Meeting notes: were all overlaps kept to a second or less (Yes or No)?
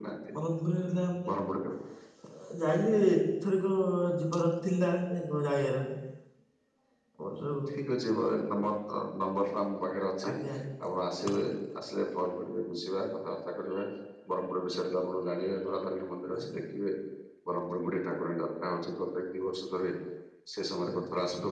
Yes